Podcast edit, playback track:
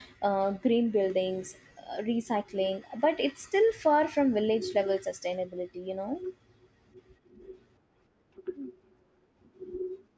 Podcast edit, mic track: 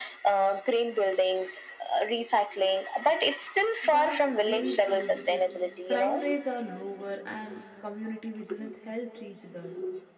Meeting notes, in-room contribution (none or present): present